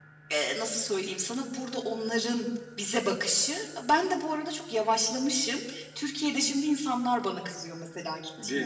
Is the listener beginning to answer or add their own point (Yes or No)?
Yes